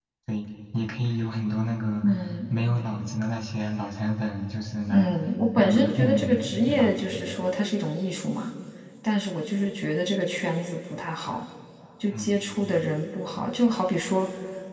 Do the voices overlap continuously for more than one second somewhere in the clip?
Yes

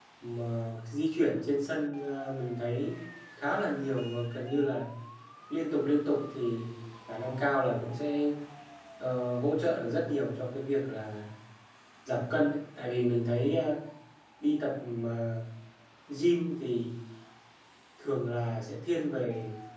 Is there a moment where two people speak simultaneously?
No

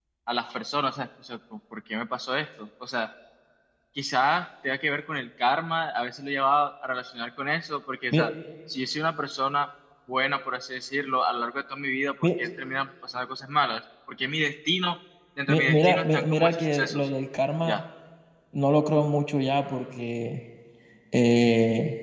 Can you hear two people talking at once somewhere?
Yes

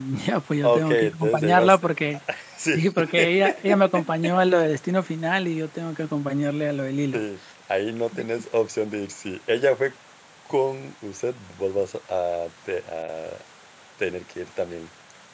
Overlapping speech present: Yes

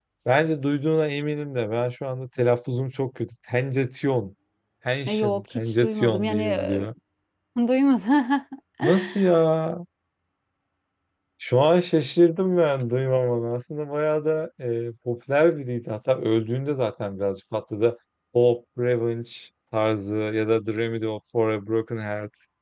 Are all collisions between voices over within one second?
No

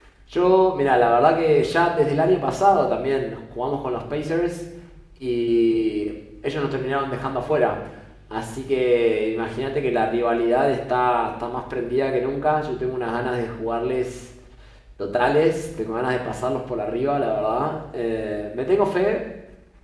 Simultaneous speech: No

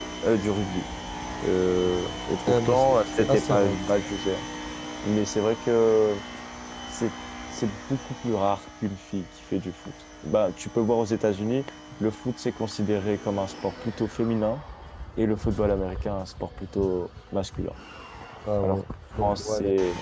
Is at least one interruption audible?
Yes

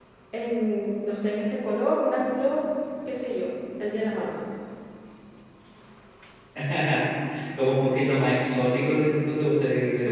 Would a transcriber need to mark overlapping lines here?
No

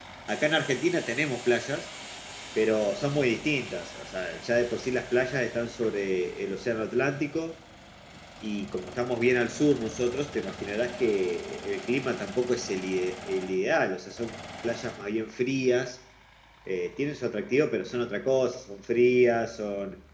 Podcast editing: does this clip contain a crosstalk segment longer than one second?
No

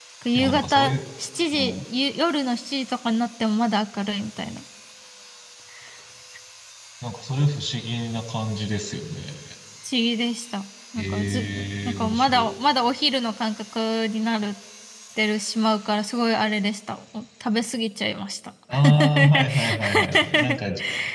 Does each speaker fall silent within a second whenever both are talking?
No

